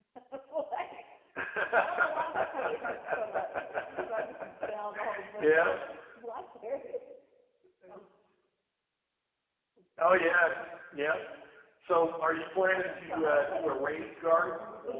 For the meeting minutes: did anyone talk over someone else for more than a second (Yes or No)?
Yes